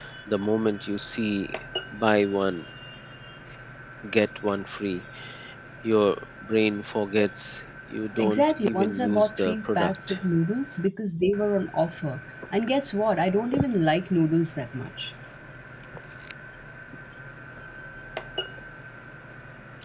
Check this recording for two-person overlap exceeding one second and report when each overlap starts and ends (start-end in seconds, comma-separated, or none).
8.2-10.2